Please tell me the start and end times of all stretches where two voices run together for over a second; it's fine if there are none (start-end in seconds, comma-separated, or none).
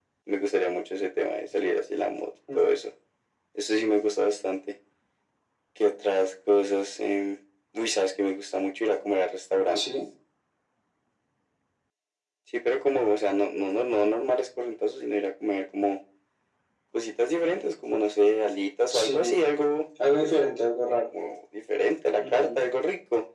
none